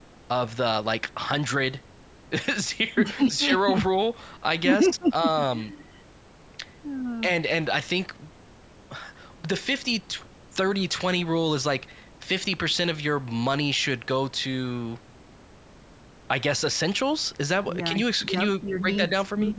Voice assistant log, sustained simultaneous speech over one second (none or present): present